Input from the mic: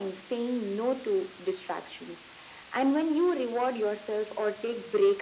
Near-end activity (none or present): none